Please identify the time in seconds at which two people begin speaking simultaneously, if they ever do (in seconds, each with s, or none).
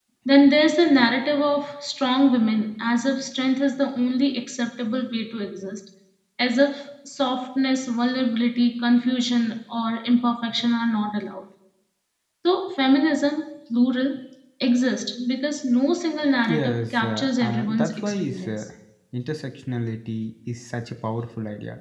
16.5 s